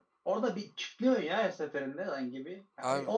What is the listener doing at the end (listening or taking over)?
listening